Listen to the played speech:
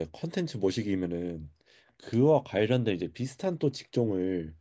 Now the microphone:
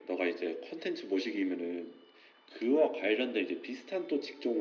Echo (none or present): present